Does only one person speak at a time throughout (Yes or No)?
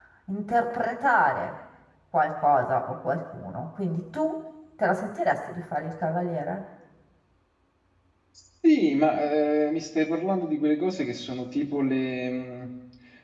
Yes